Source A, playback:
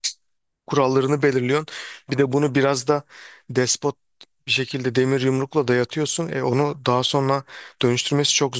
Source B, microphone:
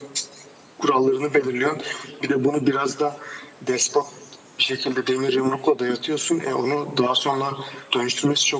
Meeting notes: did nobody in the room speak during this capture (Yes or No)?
Yes